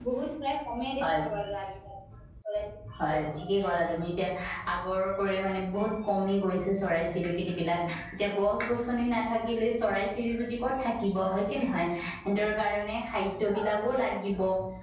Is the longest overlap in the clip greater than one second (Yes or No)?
No